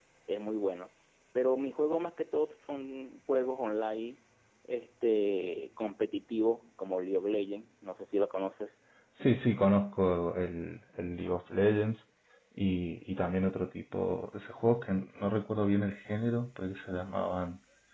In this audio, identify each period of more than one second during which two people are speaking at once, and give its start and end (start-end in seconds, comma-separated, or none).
none